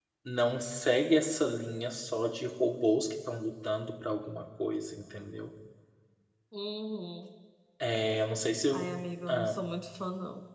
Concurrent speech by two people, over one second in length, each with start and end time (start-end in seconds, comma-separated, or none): none